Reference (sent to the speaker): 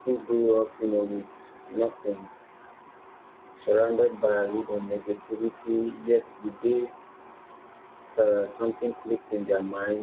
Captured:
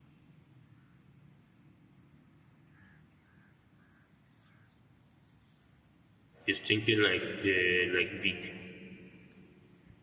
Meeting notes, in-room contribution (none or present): present